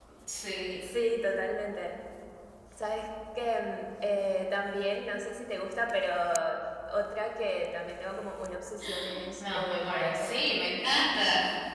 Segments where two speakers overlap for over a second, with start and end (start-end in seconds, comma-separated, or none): 9.4-10.7